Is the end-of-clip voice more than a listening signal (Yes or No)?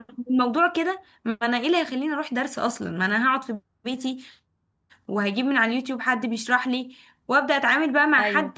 No